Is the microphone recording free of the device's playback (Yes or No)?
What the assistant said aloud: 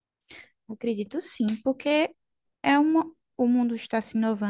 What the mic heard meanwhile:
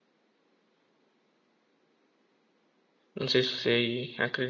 Yes